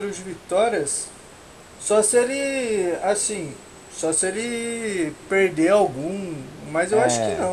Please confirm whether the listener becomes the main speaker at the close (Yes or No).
Yes